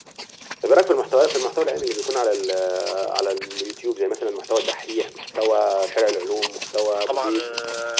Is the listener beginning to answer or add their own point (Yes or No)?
Yes